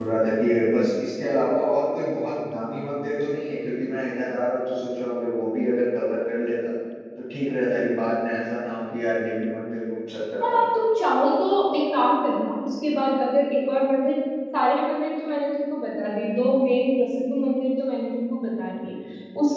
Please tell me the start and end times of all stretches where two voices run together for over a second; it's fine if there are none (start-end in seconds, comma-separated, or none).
none